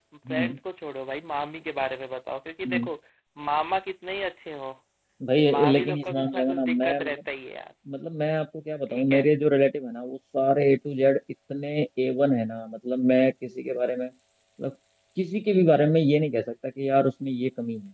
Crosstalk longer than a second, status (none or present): present